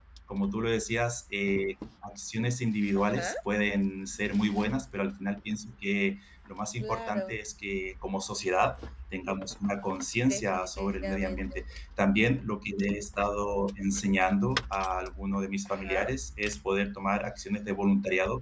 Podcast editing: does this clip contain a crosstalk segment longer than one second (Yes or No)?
Yes